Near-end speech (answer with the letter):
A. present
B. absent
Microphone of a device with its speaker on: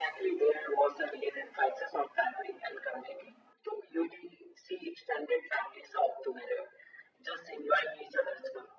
B